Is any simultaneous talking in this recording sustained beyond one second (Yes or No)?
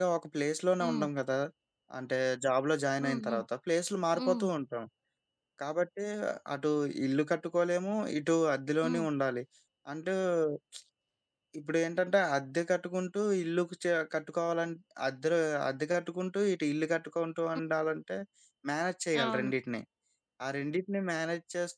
No